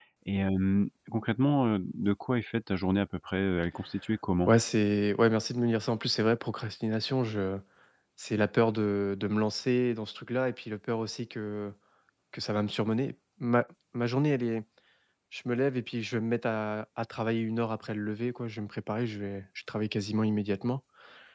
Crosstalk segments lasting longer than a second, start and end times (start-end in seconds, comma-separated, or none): none